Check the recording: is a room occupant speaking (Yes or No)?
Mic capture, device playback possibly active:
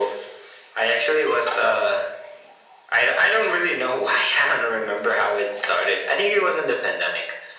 No